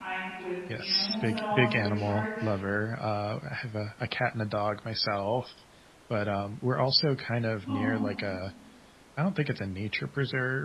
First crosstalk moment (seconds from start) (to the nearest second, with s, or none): 1 s